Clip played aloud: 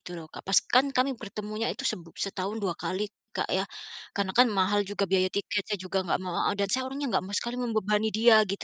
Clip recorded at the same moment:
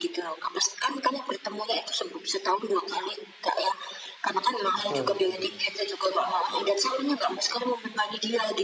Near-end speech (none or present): present